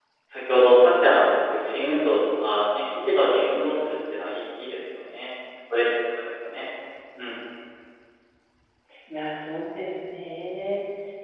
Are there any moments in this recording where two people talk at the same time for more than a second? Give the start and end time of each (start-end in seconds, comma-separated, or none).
none